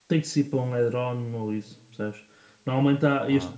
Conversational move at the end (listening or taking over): listening